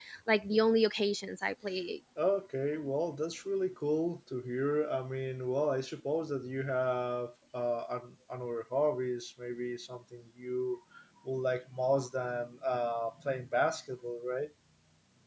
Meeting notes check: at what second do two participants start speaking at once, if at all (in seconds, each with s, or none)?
none